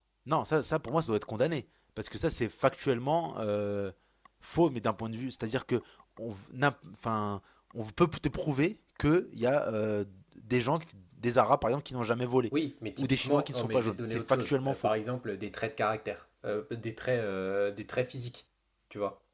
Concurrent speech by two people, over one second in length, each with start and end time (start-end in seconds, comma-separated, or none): 13.0-14.9